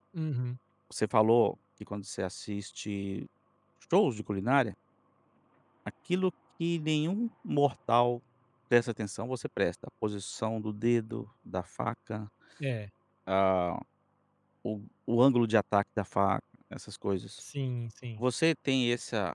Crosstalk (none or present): none